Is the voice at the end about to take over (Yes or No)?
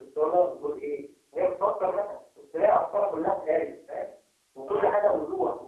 No